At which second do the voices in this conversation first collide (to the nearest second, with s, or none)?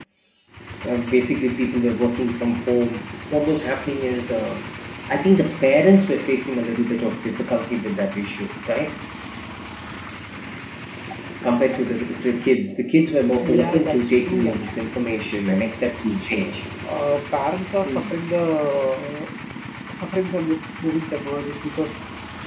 13 s